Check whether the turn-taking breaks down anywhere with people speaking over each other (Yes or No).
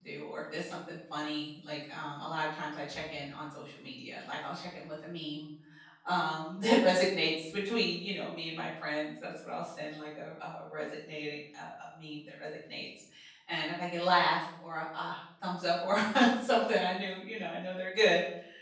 No